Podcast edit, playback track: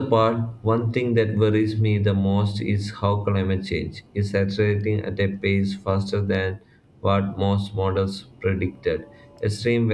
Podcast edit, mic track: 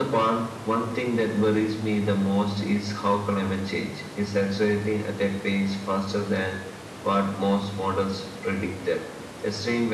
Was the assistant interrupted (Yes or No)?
No